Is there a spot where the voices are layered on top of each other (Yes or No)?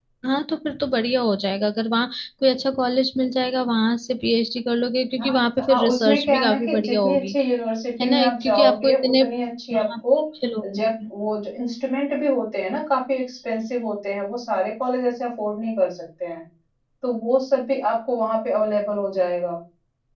Yes